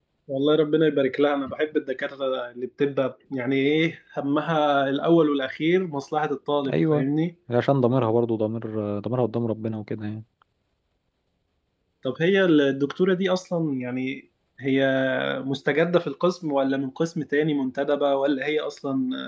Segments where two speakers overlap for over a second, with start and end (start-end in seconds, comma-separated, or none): none